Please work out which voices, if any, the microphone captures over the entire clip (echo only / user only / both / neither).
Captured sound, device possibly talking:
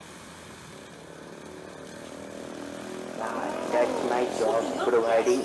both